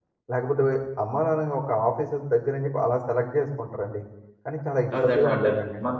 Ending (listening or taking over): taking over